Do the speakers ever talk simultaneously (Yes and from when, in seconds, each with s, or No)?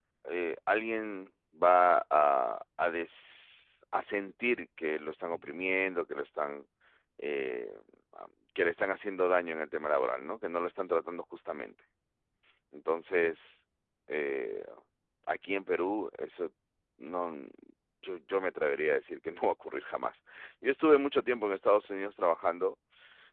No